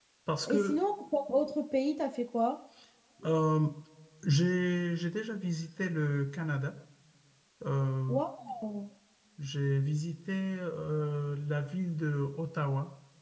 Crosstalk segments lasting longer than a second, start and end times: none

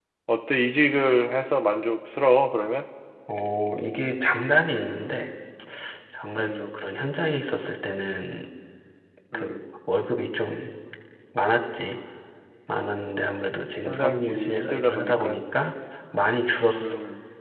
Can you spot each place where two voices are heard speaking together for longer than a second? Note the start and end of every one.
13.8-15.4

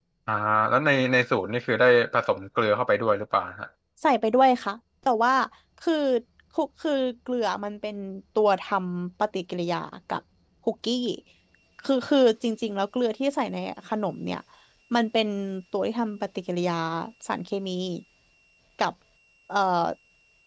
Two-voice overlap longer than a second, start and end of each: none

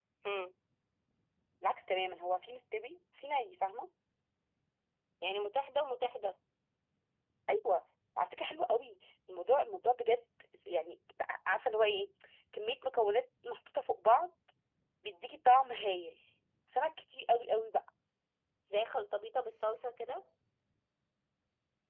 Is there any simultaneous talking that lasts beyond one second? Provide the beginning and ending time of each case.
none

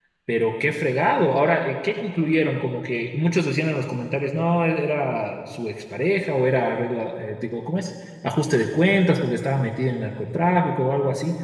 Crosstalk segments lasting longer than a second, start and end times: none

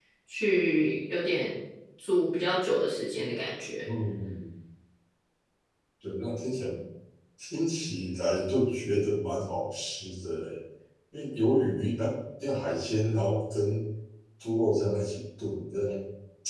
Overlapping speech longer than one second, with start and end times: none

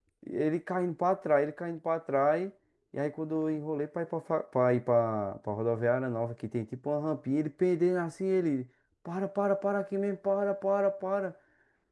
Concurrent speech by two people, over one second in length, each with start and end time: none

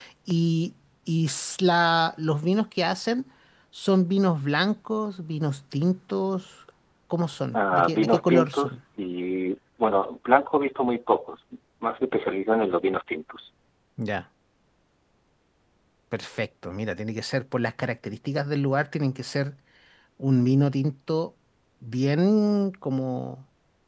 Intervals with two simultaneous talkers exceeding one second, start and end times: 7.5-8.8

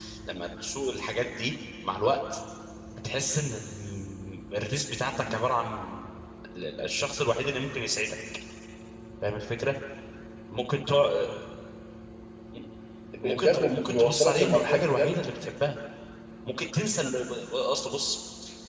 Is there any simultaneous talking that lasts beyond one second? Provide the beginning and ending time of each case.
13.2-15.1

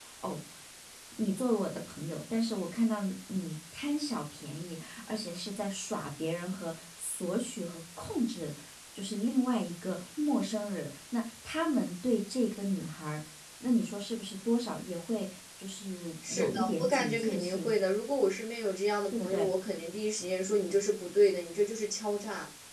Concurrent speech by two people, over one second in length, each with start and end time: 16.3-17.7

